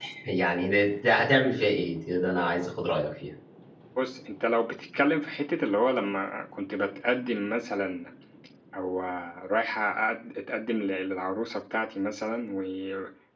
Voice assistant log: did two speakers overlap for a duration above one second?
No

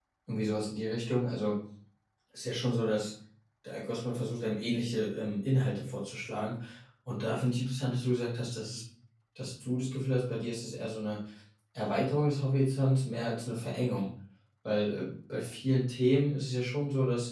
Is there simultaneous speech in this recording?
No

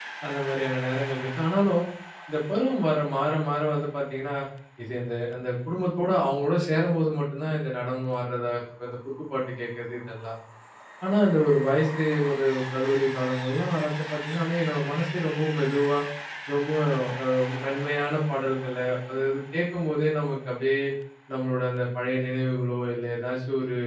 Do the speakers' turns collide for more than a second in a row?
No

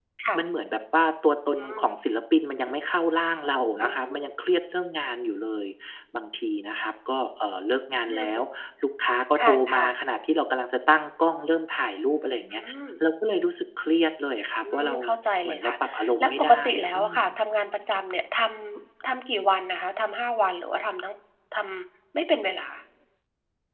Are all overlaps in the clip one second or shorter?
No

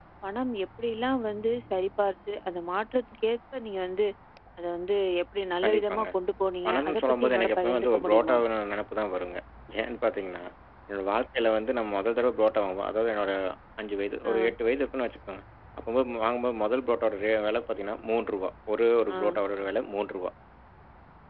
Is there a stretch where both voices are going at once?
Yes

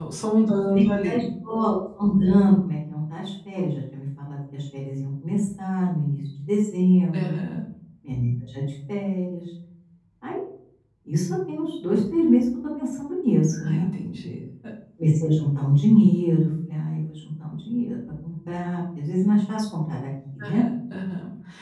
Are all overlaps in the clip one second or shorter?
Yes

